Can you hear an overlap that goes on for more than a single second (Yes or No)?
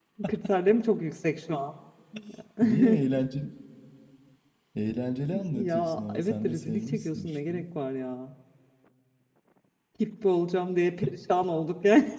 Yes